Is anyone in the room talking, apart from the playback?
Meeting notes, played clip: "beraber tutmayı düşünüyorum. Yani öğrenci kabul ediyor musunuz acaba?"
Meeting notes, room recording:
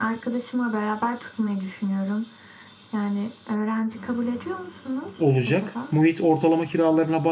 Yes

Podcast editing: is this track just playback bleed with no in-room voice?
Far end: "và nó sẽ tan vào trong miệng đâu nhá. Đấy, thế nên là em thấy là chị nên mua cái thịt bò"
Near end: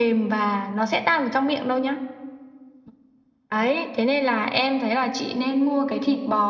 Yes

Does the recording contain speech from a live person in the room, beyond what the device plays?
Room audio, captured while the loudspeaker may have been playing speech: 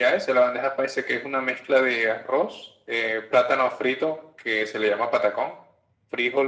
No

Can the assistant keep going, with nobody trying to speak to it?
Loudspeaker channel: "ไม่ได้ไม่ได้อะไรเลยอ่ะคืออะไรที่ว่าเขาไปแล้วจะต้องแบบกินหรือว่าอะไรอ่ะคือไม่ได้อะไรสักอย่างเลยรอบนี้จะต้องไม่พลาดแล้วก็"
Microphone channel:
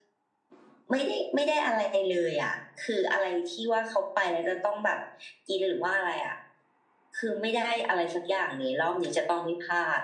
Yes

